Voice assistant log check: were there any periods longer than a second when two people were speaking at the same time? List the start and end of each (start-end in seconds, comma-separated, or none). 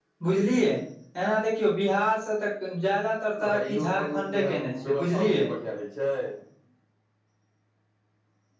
3.4-5.5